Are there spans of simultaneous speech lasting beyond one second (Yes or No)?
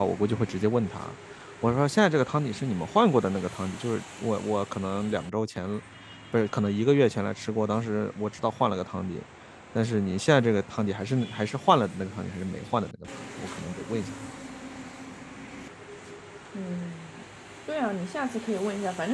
No